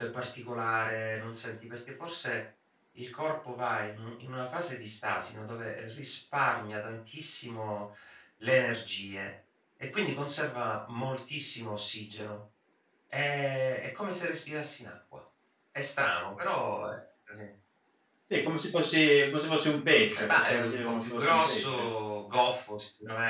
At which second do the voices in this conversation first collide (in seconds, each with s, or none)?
20.0 s